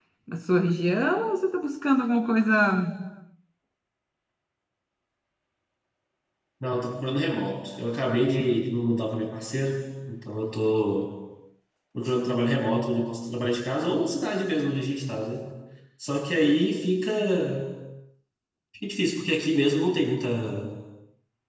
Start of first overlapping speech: none

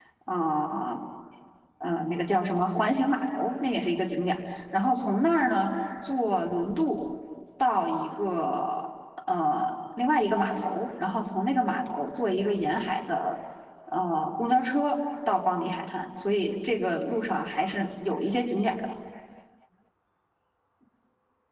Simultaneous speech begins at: none

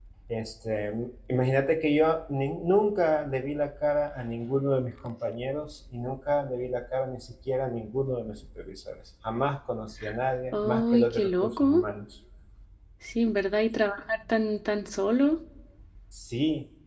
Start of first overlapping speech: 10.5 s

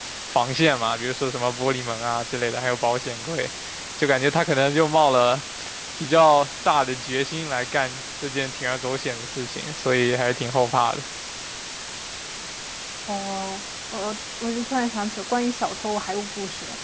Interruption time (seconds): none

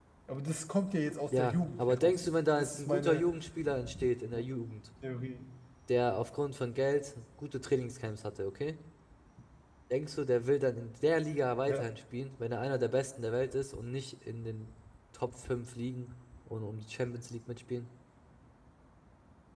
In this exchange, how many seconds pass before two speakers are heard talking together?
1.3 s

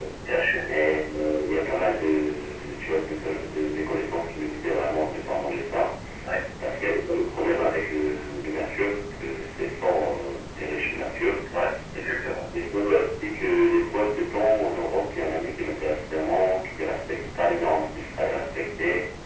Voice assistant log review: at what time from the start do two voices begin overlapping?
none

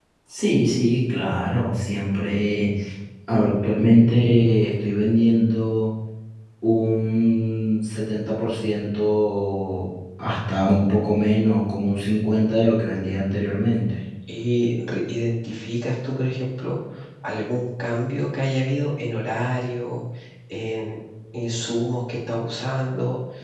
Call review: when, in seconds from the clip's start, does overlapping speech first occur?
none

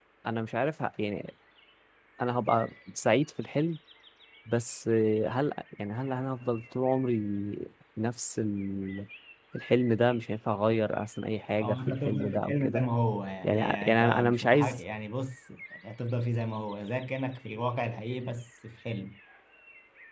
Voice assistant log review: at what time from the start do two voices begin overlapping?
11.6 s

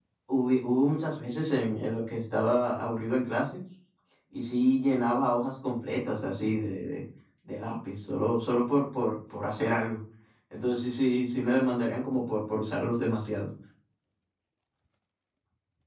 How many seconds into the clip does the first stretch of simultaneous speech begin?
none

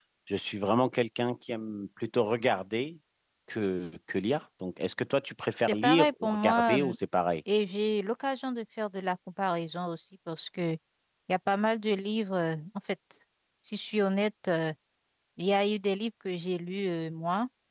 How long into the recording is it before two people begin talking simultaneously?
5.6 s

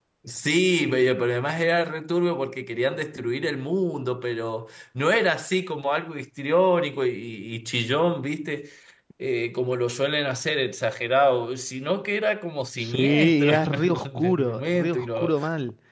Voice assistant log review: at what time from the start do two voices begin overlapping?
12.8 s

